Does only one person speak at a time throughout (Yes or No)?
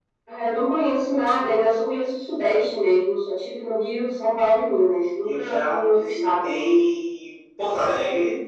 No